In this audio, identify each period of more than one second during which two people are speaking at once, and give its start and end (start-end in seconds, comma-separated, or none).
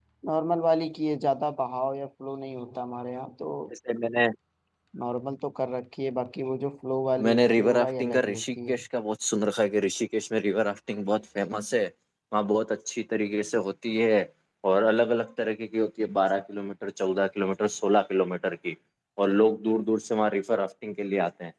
7.2-8.8